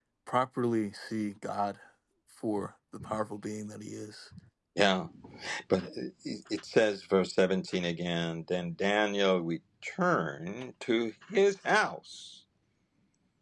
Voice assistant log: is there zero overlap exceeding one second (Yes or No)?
Yes